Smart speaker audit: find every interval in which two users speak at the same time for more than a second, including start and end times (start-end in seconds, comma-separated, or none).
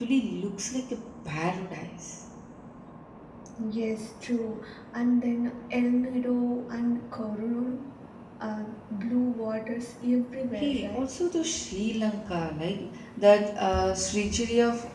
none